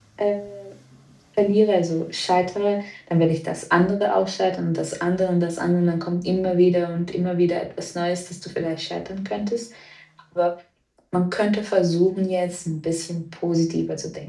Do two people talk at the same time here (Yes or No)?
No